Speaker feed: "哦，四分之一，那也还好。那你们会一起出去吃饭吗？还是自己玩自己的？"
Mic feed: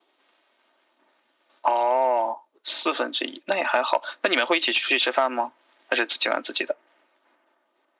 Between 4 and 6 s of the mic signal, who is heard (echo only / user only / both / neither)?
echo only